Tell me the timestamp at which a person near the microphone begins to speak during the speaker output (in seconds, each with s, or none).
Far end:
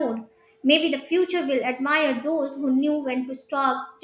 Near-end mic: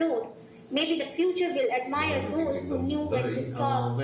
1.9 s